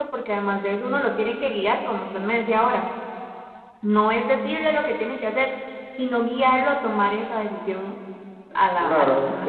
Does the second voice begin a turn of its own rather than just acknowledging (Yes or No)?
Yes